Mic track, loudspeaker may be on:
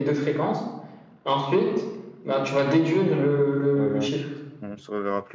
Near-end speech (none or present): present